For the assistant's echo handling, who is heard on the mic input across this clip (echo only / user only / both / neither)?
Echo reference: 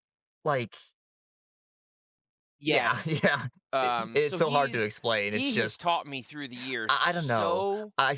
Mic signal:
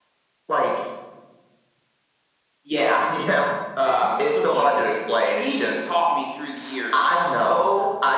echo only